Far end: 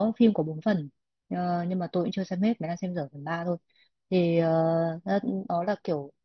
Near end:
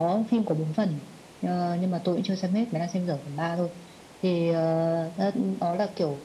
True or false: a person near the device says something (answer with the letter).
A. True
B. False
B